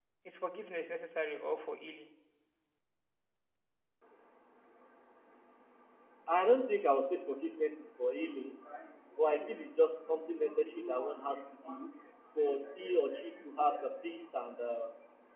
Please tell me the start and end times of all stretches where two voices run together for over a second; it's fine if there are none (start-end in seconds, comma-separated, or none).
none